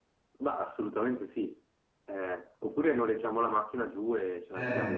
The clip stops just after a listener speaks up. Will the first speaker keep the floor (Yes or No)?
No